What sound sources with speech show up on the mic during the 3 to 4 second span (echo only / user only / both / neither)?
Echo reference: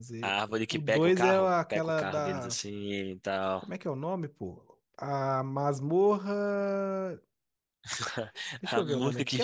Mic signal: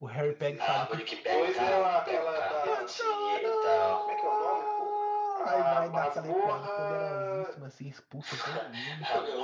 both